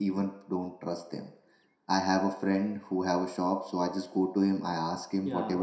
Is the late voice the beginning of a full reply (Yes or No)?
No